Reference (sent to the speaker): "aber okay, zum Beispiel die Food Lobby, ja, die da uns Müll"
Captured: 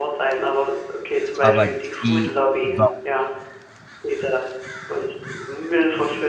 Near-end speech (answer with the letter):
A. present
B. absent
A